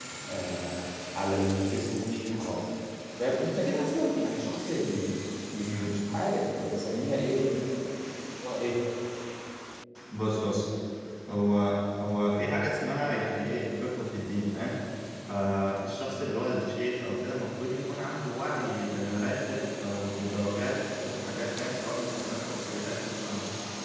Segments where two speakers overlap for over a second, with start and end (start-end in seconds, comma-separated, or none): none